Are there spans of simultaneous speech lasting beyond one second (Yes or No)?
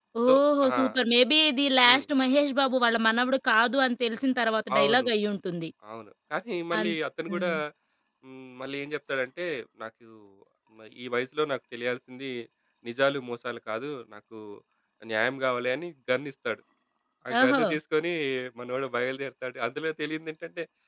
No